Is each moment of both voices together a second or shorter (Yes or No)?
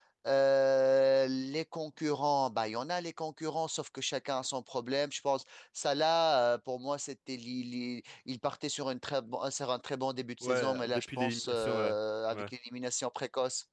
No